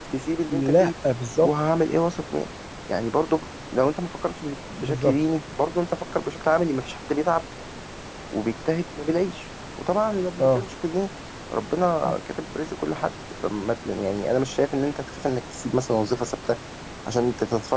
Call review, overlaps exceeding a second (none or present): none